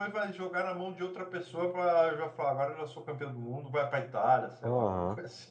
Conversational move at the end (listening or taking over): taking over